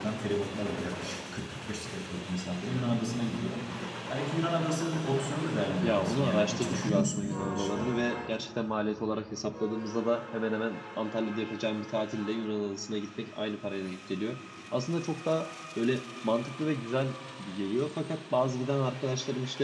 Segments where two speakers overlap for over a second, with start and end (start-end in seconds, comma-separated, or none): 5.8-8.0